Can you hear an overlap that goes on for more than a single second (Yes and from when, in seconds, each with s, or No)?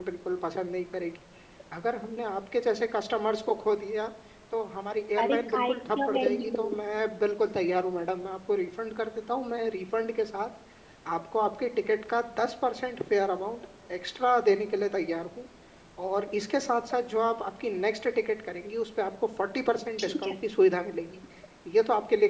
Yes, from 5.2 s